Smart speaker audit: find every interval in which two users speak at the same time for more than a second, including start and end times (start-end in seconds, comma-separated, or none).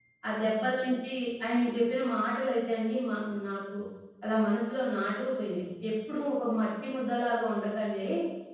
none